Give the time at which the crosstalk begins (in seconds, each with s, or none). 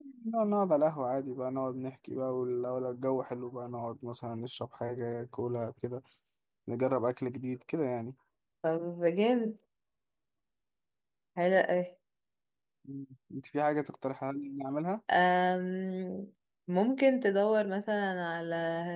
none